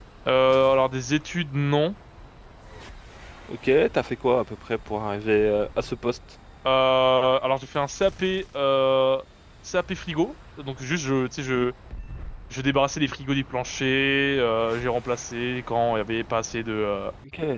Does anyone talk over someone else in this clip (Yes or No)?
No